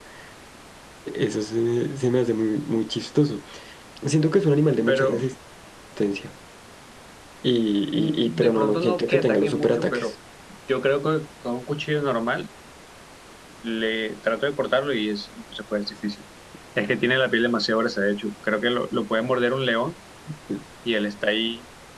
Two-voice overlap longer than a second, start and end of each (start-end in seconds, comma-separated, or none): 7.9-10.0